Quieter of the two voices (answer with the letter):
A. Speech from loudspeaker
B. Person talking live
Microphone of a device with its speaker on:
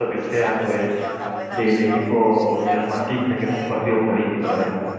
A